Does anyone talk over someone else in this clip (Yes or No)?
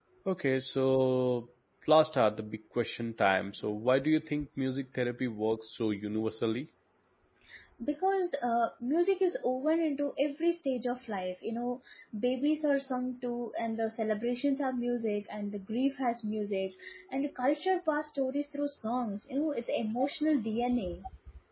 No